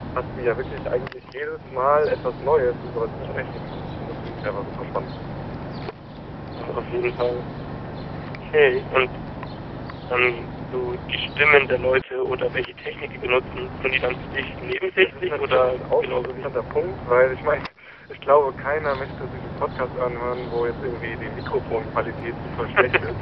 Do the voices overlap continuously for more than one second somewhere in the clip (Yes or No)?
Yes